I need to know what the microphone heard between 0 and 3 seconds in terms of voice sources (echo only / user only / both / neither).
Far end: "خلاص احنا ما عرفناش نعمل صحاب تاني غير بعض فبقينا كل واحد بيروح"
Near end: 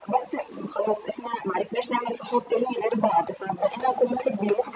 echo only